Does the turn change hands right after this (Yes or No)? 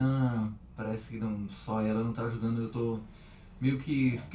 No